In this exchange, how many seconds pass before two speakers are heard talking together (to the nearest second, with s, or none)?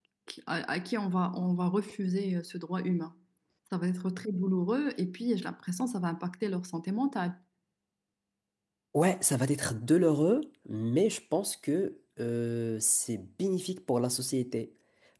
none